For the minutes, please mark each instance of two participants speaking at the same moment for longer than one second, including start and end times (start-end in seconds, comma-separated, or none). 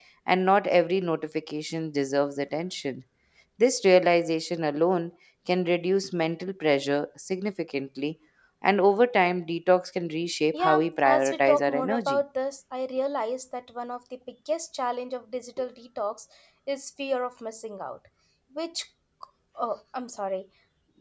10.5-12.2